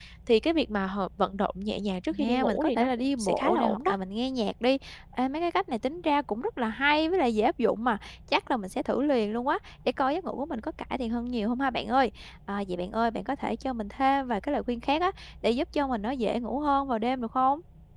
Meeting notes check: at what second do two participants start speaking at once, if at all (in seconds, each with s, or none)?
2.1 s